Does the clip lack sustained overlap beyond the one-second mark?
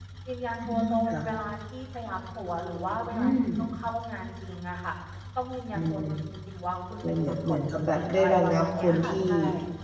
No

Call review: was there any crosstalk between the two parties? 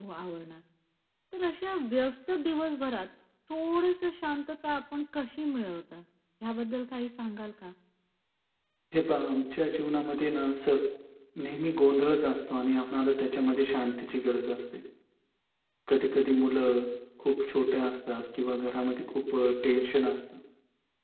No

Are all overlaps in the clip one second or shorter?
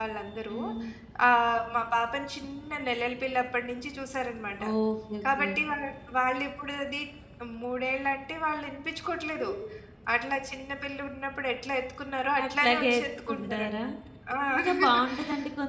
No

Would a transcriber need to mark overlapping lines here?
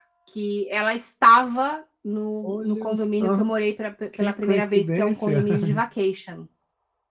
Yes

